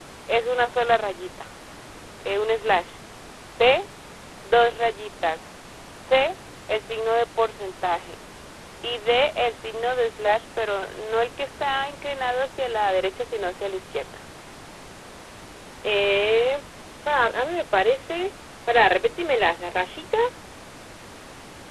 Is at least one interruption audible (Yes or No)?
No